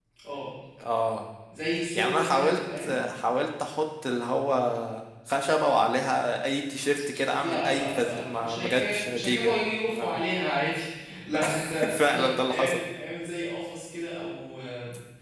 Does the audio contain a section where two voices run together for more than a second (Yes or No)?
Yes